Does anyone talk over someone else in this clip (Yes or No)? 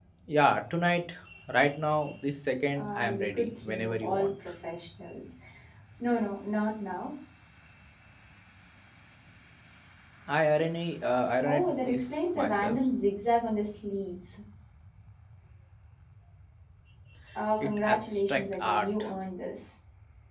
Yes